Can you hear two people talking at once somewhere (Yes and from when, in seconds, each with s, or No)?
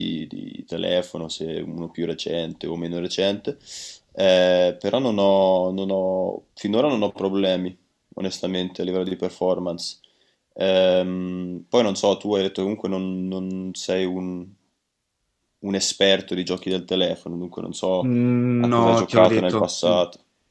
Yes, from 18.6 s